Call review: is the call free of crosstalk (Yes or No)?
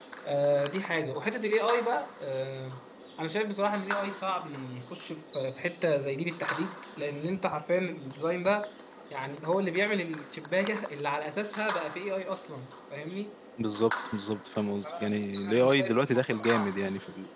No